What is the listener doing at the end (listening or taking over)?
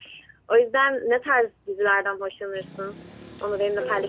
taking over